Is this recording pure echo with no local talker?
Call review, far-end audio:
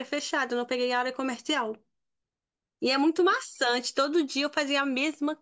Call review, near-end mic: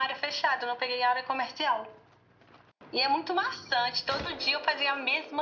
Yes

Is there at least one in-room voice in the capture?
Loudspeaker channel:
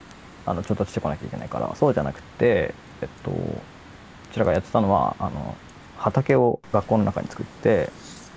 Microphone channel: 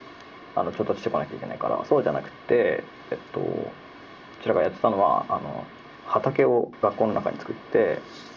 No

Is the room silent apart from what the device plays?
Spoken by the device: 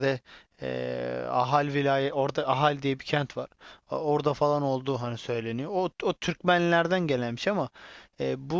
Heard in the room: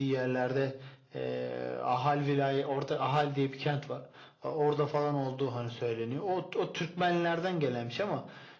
Yes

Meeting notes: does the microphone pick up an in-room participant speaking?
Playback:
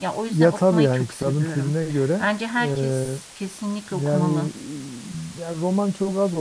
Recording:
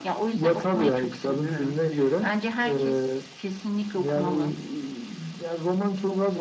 No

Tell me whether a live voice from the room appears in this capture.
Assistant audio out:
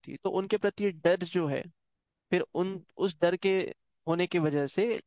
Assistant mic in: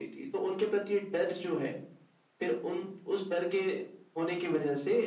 No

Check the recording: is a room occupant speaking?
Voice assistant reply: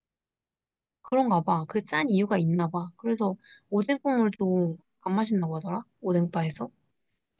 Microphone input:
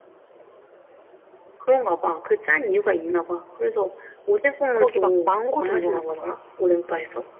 Yes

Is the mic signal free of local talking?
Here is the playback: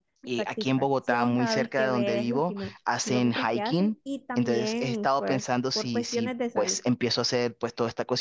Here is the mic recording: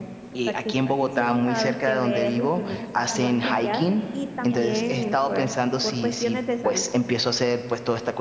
No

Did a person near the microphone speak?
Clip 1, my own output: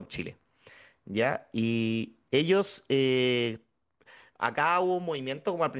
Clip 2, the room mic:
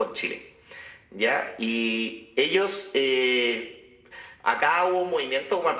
No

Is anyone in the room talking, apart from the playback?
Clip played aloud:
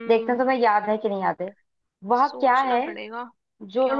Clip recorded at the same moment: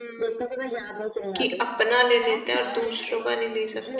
Yes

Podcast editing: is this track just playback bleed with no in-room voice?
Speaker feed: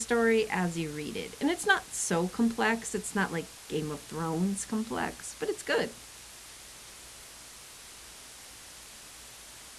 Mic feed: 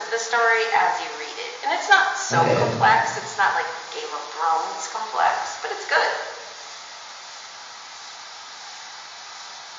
No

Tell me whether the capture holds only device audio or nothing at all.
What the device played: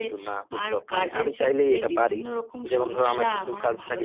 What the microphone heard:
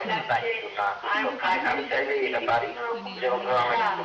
No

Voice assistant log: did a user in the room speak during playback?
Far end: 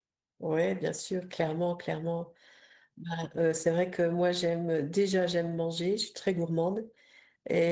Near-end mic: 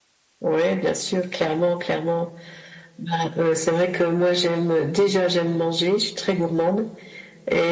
No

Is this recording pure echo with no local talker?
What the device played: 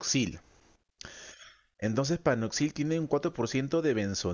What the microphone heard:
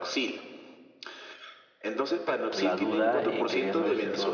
No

